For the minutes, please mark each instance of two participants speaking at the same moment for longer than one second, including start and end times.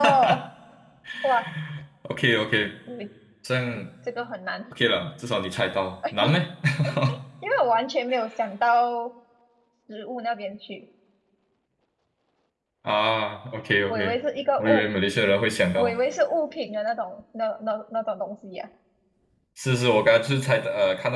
none

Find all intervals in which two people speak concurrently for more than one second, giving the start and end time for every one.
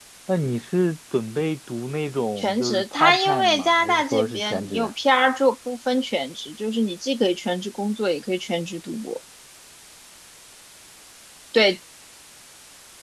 2.4-4.9

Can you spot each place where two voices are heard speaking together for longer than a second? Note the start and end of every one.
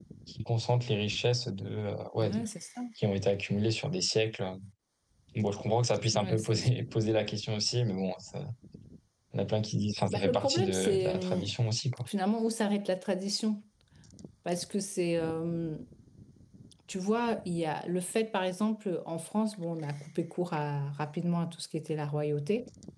10.1-11.5

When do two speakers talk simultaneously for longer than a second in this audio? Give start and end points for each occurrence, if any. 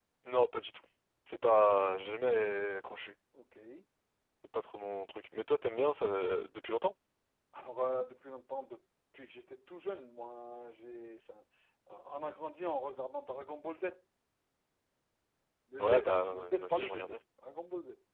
15.8-17.2

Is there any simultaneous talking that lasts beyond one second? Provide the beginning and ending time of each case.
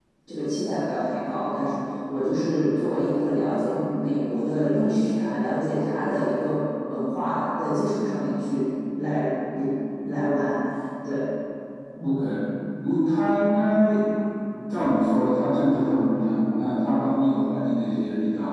none

